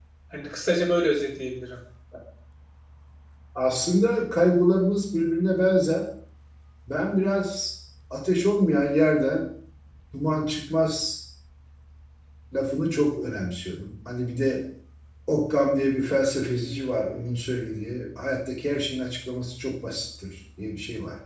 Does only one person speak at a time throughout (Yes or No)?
Yes